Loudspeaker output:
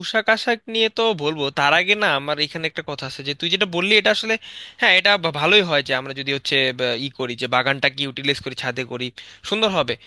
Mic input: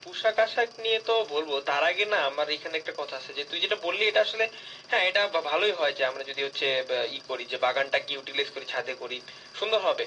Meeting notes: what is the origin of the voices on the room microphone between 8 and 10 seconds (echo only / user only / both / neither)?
echo only